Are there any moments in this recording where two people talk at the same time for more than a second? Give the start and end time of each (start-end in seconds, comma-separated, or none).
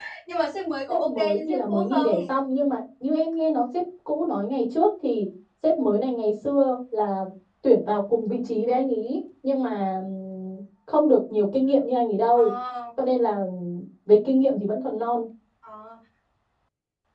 0.9-2.2